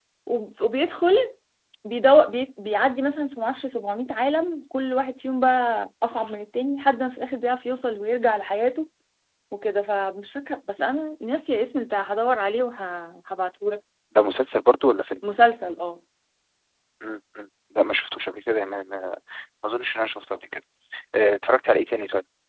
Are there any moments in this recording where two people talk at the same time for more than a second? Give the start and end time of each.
none

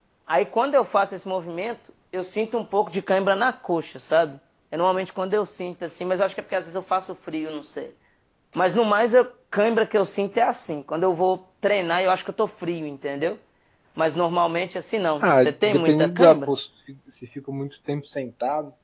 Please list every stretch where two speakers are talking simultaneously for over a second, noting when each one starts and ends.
15.2-16.5

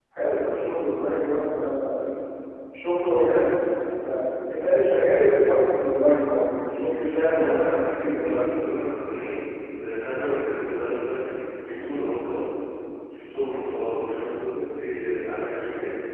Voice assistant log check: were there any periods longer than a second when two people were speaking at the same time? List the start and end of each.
7.0-8.5

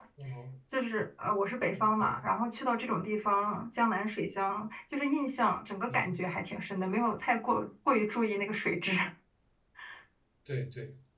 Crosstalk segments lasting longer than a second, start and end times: none

